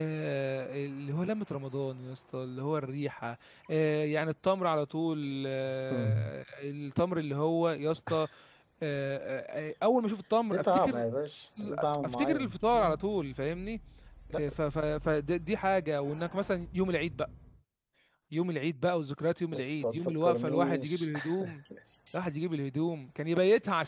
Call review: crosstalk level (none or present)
present